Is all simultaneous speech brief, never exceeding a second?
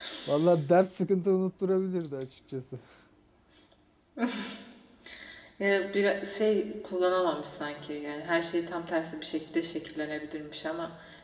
Yes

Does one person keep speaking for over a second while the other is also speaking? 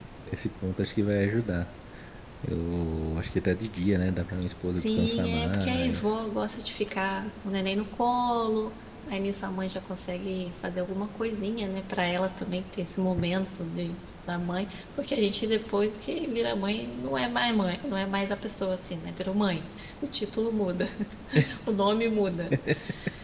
Yes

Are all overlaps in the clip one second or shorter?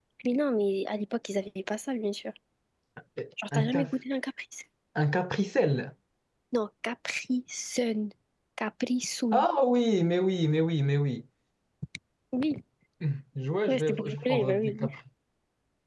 No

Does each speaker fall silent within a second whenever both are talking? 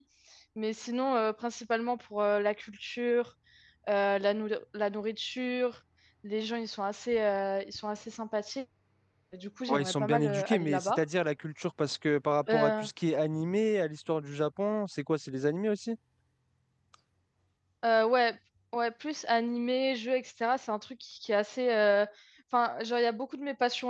No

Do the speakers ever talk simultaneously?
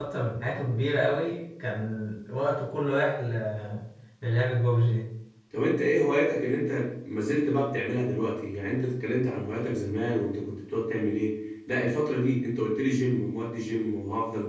No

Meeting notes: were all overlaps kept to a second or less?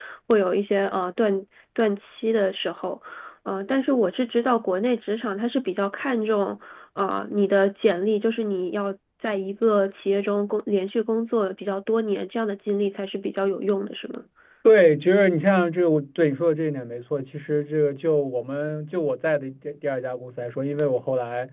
Yes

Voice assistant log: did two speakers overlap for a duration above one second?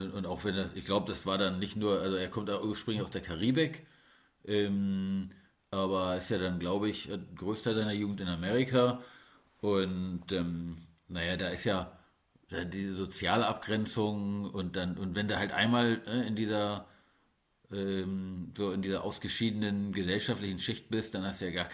No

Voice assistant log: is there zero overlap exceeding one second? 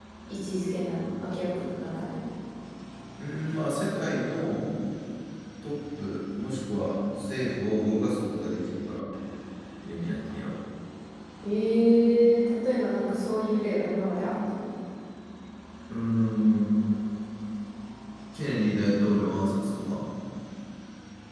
Yes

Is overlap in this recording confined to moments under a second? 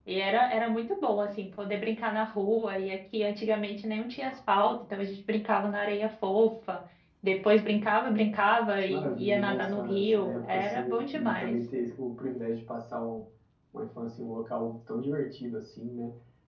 No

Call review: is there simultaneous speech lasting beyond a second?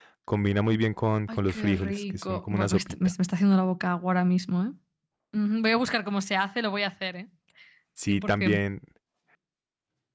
Yes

